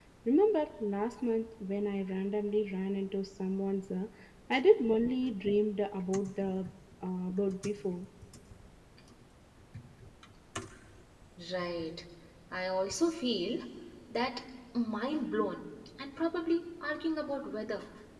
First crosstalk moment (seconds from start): none

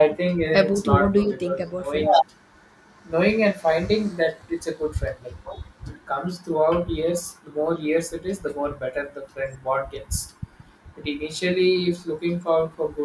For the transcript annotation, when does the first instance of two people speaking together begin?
0.5 s

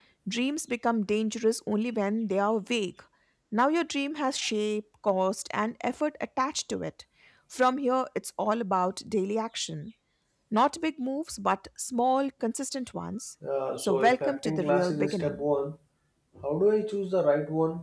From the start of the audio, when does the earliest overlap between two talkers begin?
13.8 s

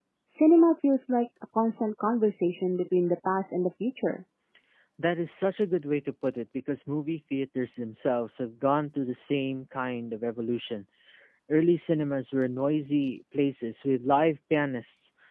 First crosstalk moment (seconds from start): none

